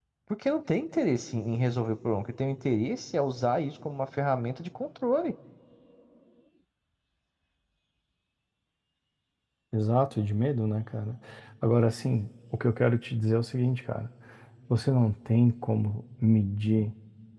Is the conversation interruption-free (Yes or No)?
Yes